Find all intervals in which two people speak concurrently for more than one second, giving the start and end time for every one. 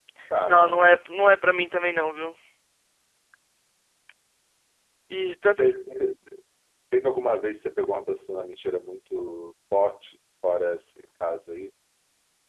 none

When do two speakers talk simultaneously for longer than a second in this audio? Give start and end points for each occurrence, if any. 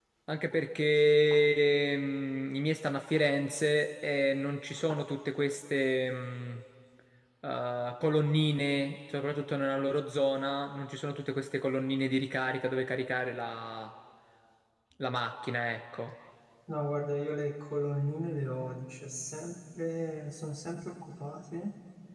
none

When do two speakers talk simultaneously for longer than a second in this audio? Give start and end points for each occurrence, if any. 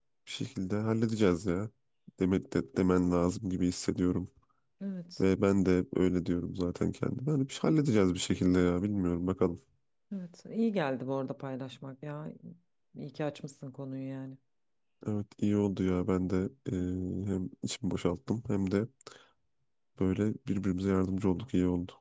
none

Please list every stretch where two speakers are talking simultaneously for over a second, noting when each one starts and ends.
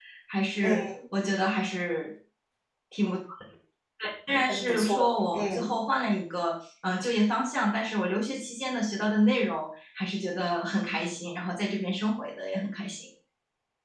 4.5-5.7

